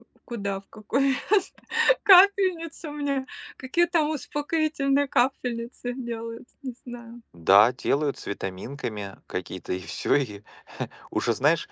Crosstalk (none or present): none